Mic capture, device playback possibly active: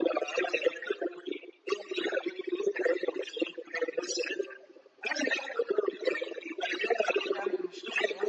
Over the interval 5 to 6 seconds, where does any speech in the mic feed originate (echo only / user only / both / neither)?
echo only